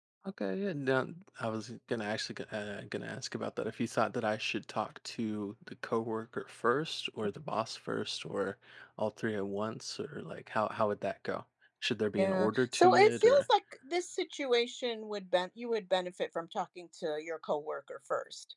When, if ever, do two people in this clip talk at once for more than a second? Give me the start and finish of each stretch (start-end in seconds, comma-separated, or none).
12.2-13.4